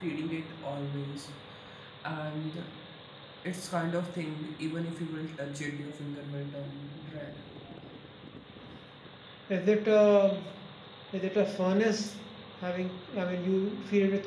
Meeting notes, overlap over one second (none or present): none